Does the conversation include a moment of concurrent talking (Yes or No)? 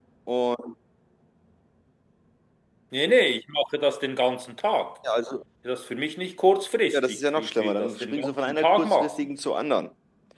Yes